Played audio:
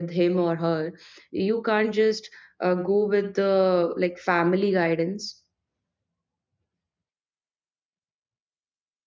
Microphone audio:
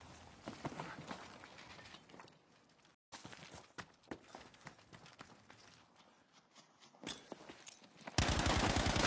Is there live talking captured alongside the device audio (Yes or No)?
No